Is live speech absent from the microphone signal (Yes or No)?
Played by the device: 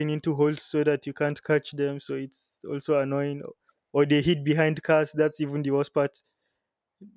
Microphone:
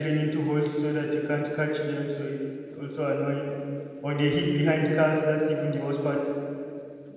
Yes